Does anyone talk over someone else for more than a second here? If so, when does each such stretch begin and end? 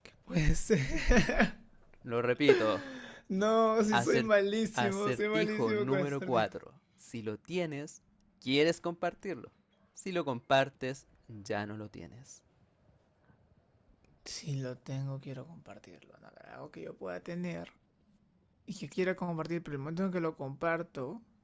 4.8-6.5

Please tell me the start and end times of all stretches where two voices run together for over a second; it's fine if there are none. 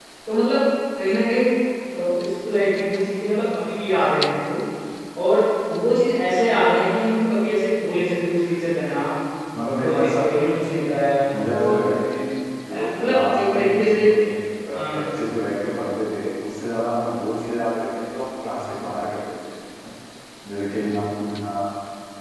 12.7-13.9

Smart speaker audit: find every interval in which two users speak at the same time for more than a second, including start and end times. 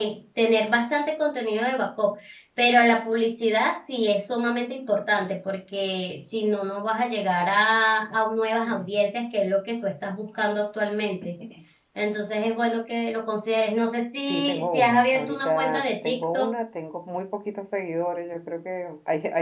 14.2-16.5

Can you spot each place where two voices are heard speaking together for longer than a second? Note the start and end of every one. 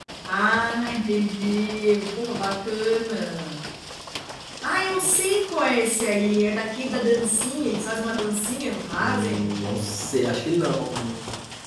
none

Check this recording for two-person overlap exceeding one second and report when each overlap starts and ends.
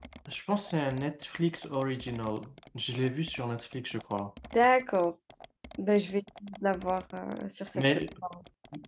none

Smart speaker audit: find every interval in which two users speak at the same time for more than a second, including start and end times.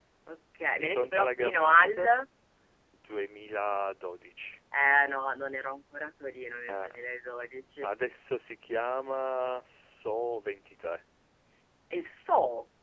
0.7-2.1

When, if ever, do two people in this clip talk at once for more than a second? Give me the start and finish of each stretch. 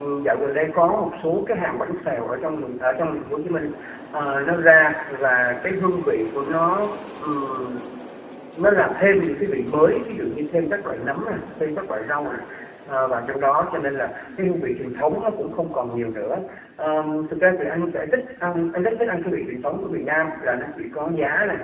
none

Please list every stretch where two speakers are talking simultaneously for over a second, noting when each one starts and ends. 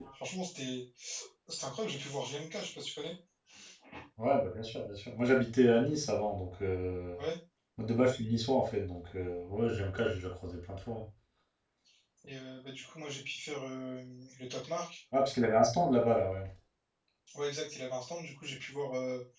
none

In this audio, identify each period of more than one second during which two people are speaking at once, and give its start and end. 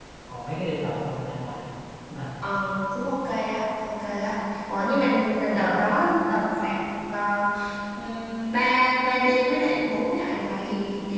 none

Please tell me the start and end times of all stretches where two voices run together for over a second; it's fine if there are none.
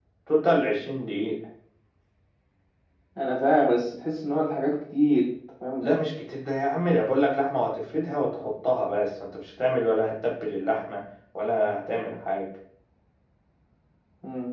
none

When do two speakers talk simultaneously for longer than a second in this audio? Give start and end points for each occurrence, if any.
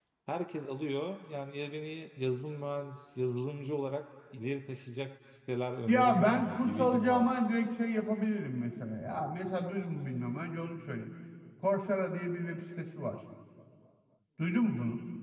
5.9-7.3

